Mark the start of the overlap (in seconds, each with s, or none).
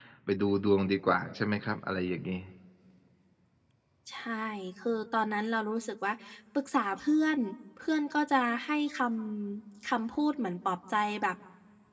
none